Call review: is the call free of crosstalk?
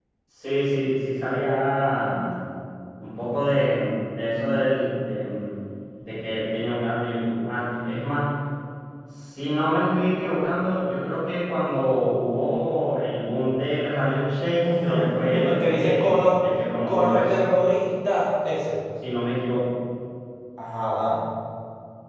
No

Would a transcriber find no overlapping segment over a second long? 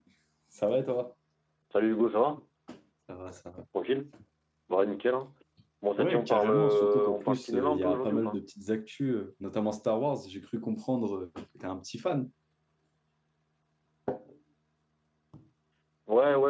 No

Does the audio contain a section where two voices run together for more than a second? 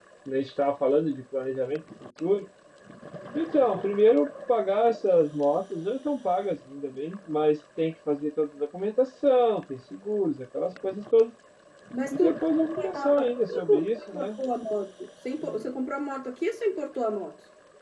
Yes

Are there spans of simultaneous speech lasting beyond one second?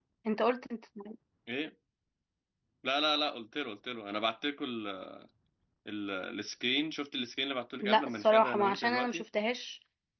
Yes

